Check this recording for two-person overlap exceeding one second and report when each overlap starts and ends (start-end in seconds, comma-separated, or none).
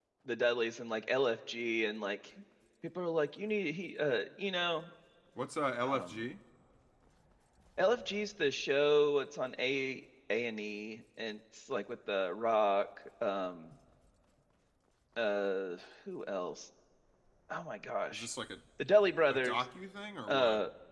none